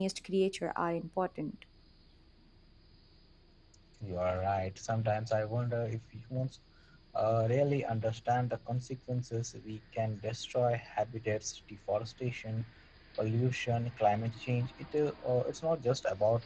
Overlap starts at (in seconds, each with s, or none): none